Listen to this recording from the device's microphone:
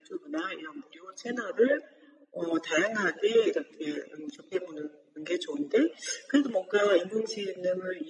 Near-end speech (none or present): none